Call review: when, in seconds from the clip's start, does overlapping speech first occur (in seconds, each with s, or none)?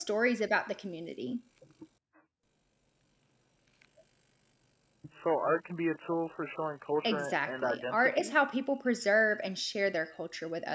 7.0 s